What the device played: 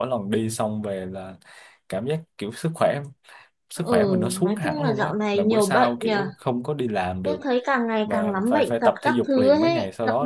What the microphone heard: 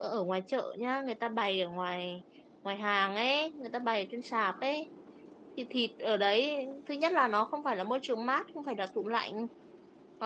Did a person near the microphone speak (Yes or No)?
Yes